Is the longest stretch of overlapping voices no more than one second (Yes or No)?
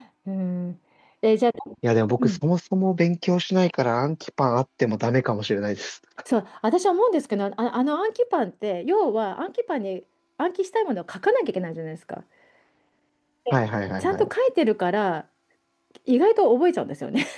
Yes